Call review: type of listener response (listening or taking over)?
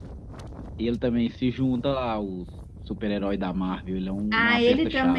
taking over